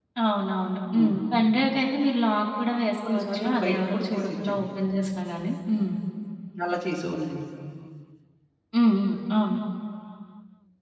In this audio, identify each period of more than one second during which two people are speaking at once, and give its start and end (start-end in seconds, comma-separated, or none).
3.1-4.7